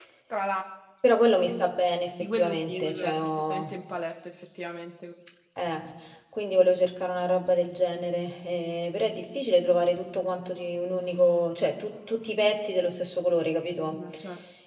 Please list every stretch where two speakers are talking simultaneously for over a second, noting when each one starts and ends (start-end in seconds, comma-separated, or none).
2.3-3.7